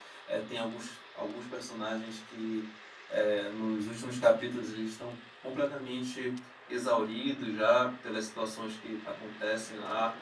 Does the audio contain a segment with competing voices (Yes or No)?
No